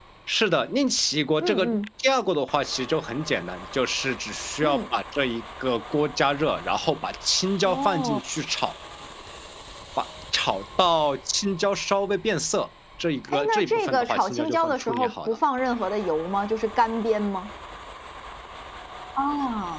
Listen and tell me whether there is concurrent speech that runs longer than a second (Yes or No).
Yes